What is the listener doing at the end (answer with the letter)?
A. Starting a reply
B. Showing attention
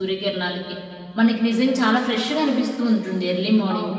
A